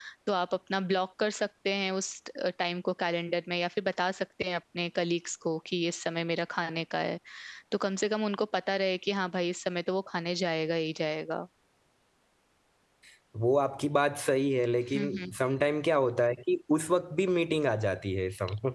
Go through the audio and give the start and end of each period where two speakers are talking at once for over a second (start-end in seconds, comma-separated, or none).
none